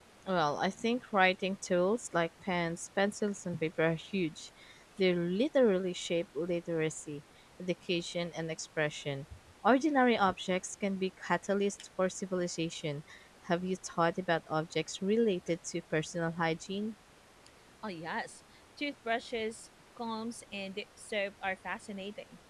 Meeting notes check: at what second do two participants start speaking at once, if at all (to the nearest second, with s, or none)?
none